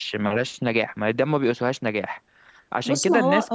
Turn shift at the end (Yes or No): Yes